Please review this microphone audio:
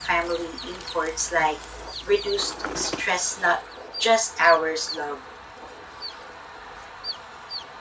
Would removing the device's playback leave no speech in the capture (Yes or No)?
Yes